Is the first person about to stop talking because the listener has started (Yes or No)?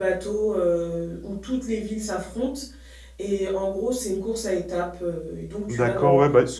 Yes